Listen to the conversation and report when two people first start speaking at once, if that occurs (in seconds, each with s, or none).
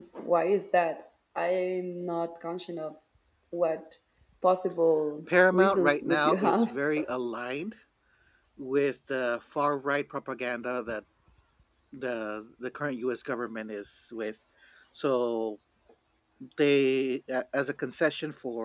5.5 s